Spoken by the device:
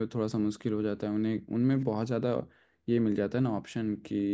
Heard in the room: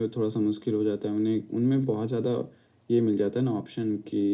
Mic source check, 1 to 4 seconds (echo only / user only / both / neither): echo only